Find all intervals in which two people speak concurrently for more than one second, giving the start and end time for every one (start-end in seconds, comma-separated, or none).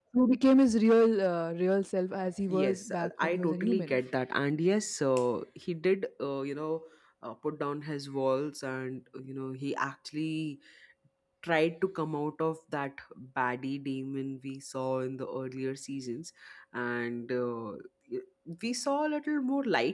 2.5-4.0